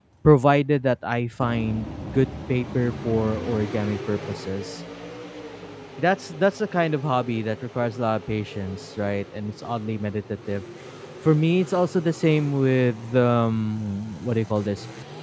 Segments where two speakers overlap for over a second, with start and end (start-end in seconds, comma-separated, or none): none